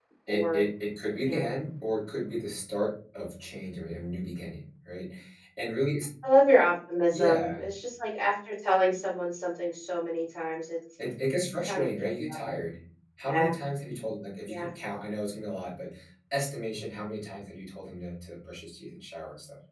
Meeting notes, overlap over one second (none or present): none